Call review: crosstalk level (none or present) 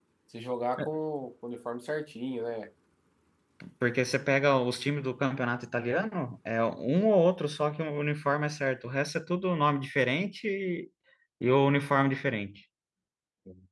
none